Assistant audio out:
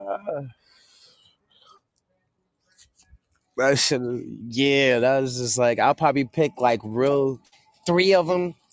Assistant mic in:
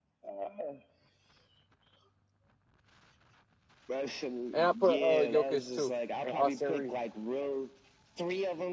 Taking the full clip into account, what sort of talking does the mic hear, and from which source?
both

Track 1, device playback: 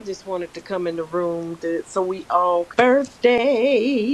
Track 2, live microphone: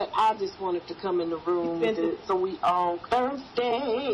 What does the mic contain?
both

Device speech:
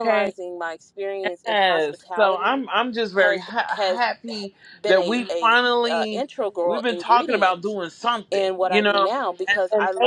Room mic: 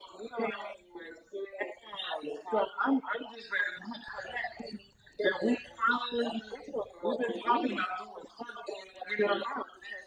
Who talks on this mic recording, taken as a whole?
echo only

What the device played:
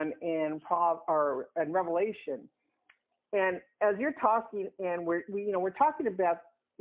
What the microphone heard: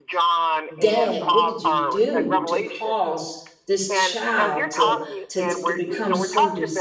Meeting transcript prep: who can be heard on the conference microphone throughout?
both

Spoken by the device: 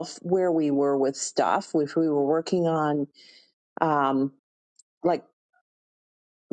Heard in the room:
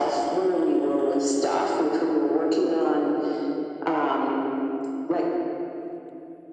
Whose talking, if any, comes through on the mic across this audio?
echo only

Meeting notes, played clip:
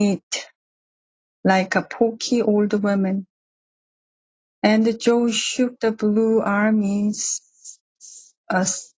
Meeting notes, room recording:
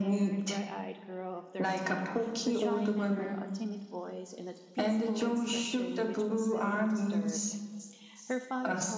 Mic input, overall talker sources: both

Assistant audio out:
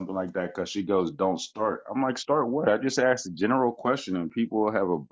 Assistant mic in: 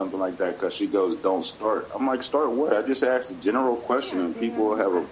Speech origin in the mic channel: both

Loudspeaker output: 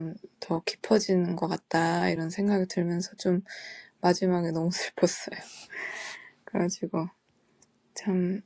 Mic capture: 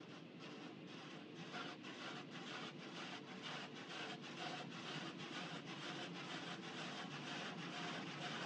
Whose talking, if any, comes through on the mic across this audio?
neither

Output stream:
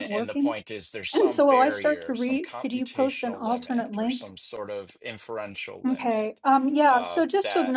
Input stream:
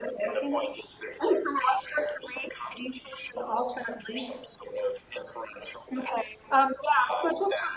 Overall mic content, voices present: echo only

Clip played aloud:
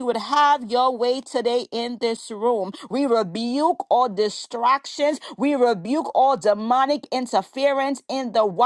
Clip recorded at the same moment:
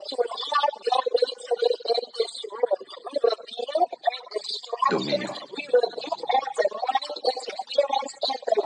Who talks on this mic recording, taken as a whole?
both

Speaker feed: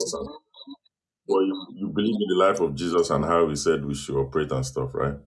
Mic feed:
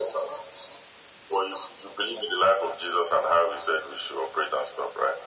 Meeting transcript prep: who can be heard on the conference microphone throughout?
echo only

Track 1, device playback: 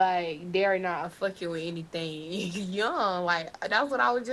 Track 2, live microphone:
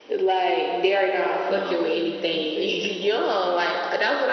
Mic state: both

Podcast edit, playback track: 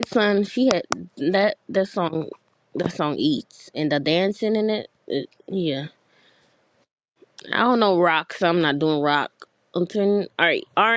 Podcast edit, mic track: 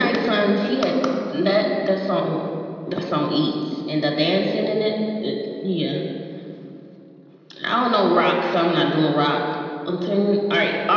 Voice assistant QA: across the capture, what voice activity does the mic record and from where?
echo only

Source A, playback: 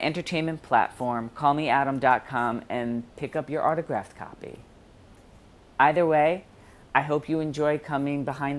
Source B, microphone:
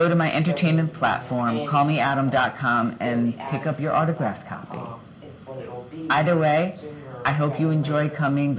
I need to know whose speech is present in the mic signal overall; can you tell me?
both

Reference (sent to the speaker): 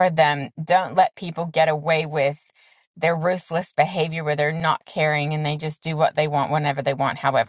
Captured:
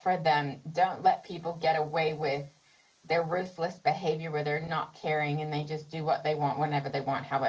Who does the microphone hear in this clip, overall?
echo only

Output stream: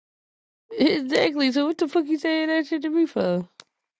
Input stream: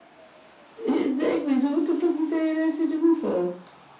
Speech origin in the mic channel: echo only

